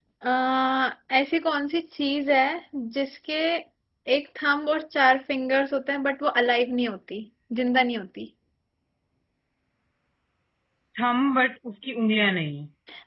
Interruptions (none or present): none